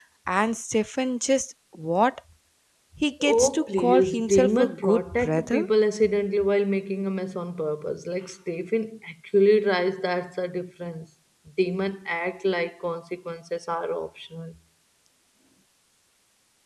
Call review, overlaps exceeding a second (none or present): present